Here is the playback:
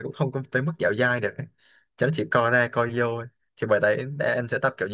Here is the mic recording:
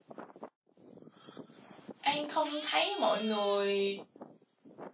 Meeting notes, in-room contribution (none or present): present